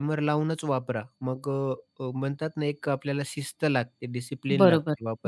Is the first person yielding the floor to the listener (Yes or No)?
Yes